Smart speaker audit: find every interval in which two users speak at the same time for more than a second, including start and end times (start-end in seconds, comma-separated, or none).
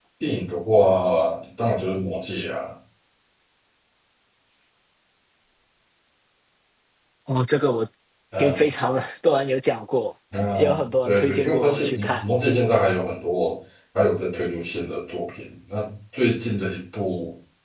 11.1-12.3